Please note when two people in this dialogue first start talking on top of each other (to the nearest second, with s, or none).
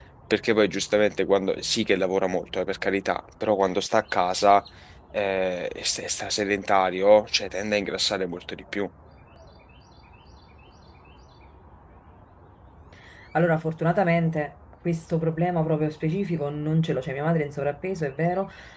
none